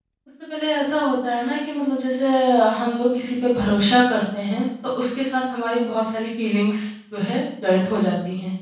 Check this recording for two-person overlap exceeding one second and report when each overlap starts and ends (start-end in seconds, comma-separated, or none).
none